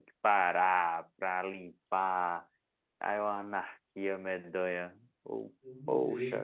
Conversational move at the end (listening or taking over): taking over